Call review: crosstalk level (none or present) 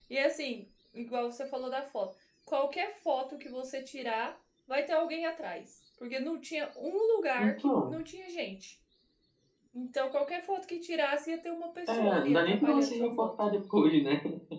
present